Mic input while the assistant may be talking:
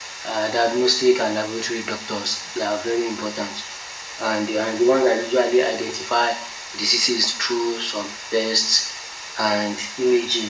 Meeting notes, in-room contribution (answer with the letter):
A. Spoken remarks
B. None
B